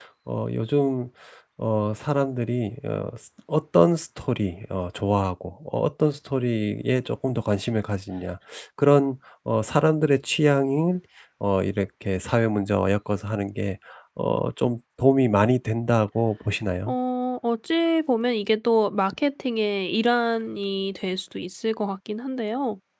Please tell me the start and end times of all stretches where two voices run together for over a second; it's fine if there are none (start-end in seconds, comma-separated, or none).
none